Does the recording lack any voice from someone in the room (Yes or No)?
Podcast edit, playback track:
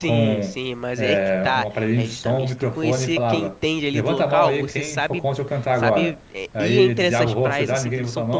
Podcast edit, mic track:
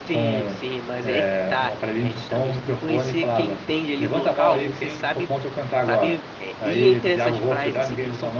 Yes